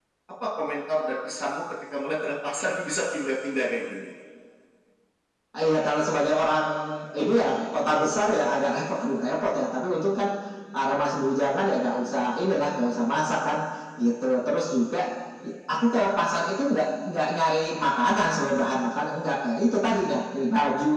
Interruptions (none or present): none